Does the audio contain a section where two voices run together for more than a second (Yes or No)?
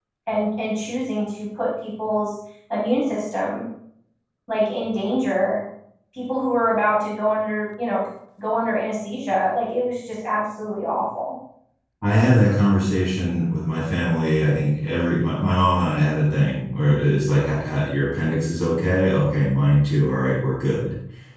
No